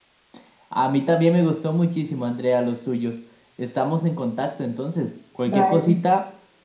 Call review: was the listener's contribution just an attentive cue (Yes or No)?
Yes